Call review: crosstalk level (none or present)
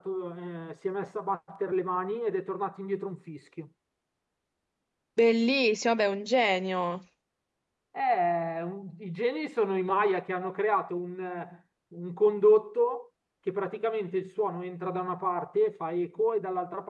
none